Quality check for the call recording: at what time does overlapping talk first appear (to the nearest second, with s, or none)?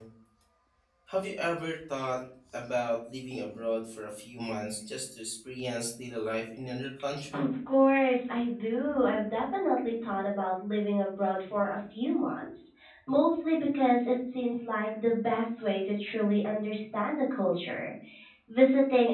none